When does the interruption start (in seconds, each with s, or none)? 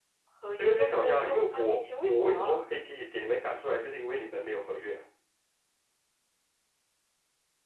0.6 s